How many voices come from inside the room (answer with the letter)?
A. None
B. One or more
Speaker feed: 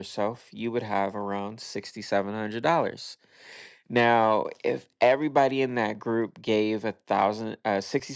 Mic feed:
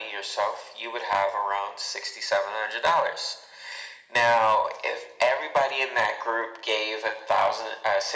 A